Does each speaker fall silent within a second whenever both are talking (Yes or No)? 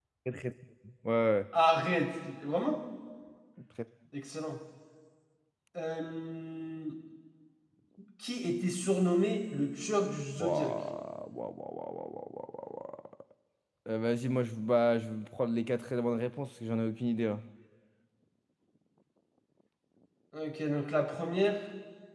Yes